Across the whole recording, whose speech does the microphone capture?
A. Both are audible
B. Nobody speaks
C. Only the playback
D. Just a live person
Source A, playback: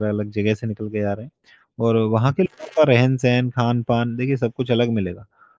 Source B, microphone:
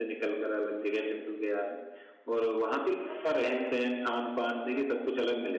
A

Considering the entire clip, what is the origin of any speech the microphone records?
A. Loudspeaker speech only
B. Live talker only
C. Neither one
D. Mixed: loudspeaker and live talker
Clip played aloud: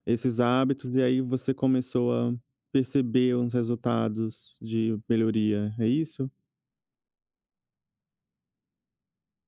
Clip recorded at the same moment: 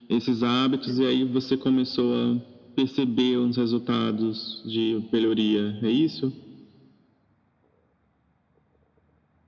D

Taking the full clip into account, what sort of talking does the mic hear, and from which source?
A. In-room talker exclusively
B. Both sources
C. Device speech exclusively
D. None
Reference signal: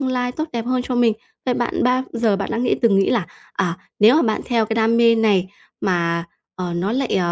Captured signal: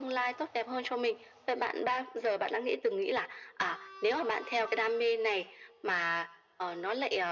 C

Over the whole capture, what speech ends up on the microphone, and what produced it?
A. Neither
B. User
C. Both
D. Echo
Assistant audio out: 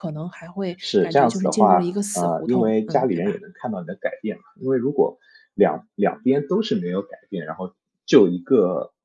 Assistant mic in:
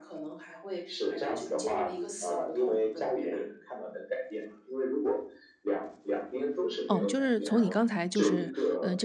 C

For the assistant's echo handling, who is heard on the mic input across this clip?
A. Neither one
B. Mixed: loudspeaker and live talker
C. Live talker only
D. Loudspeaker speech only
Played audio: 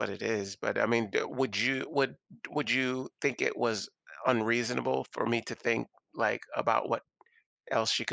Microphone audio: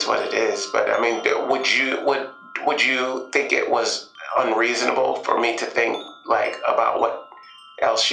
D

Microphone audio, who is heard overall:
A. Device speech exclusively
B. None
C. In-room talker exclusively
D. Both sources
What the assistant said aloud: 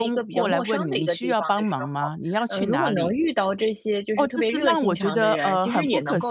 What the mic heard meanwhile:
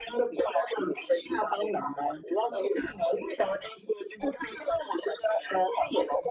A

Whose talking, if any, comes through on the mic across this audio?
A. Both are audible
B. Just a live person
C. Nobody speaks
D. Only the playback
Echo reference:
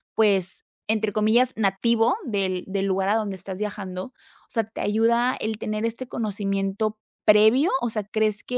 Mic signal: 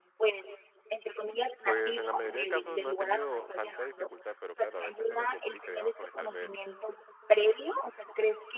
A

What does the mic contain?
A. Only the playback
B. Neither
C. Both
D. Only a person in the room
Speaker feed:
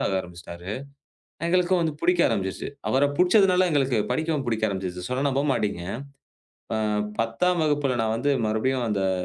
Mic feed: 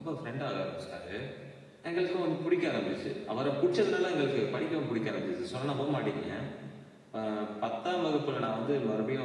A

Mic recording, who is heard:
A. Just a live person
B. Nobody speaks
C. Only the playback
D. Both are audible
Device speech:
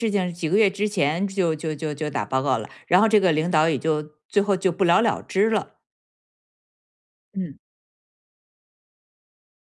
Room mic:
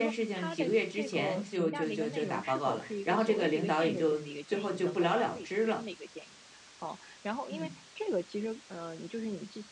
D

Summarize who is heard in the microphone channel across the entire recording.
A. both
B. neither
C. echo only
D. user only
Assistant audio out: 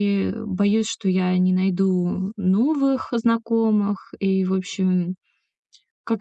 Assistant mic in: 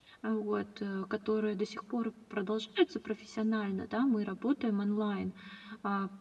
D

